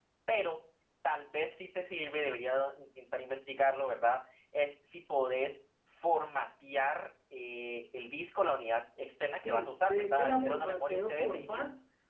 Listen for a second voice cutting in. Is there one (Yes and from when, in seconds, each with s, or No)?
Yes, from 9.4 s